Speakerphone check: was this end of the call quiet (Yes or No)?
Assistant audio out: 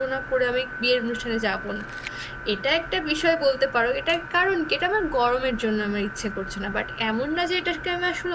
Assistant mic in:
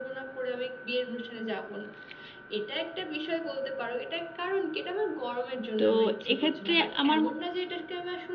No